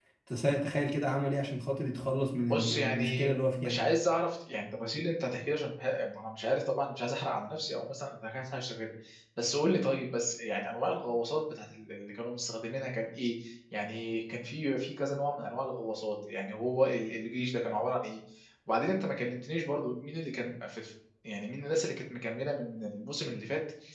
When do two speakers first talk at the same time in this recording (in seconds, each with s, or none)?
2.5 s